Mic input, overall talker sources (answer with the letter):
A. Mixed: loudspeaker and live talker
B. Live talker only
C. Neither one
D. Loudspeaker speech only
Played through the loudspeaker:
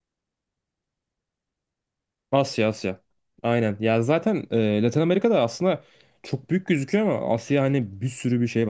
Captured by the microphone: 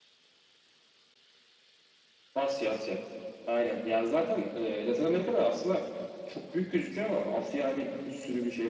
D